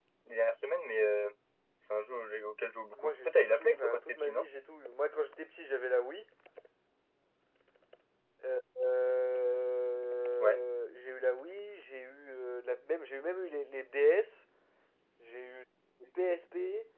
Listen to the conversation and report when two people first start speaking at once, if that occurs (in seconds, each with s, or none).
3.0 s